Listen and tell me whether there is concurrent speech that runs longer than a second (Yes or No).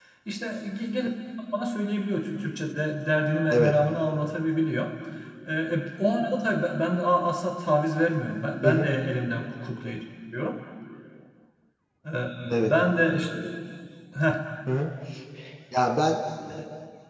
No